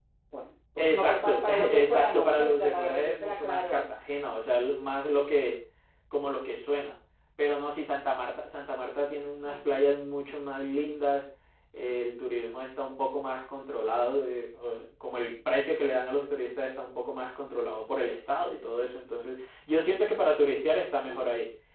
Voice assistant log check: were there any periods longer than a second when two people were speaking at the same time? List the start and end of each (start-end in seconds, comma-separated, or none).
0.8-3.8